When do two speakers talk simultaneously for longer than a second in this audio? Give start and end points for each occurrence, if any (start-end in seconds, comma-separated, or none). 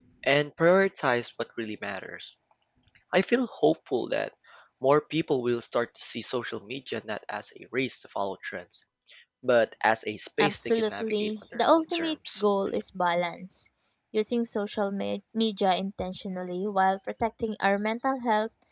10.4-12.1